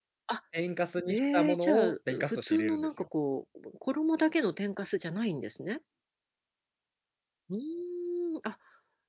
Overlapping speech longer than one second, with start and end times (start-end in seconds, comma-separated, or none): 1.1-3.0